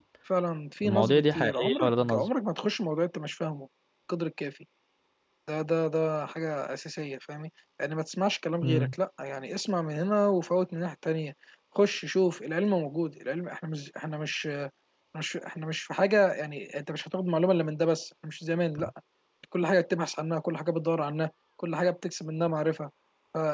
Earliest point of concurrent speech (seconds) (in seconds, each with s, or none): 0.8 s